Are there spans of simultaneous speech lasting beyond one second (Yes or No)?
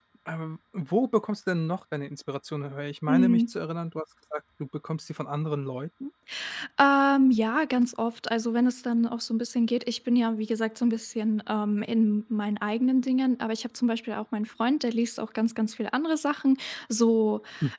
No